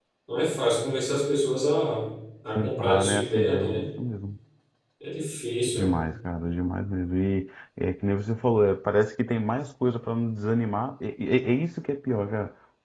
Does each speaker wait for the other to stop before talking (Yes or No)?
No